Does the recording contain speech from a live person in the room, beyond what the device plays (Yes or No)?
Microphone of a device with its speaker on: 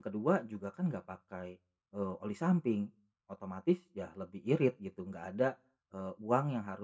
Yes